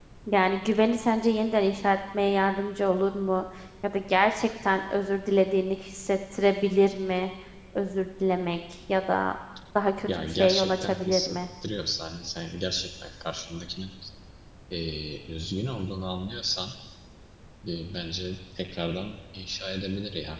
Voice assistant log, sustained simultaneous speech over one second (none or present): present